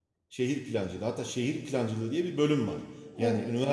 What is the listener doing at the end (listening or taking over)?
listening